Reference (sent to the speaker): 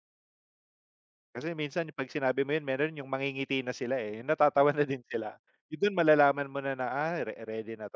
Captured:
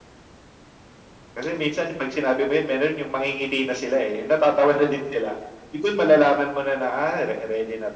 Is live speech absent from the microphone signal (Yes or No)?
Yes